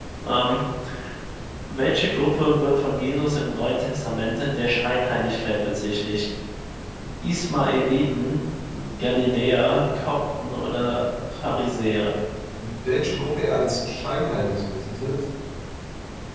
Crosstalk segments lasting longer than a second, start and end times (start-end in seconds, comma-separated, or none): none